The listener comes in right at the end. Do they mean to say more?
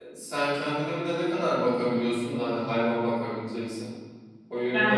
Yes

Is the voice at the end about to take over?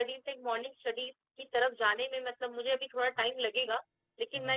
No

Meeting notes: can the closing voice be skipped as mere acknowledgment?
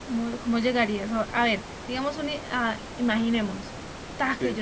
Yes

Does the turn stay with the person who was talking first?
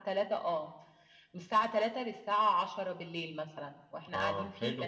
No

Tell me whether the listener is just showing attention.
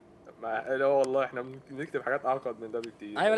No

